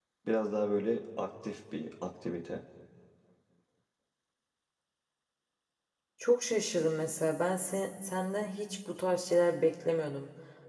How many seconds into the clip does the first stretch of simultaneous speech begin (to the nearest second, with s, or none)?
none